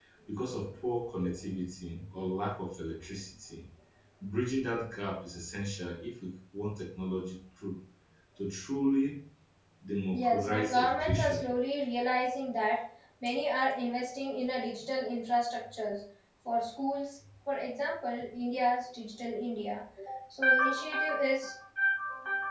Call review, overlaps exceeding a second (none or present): present